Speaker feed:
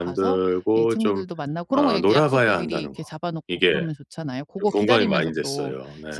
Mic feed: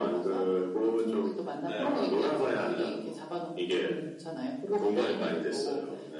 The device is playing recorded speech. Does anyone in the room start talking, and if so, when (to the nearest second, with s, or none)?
2 s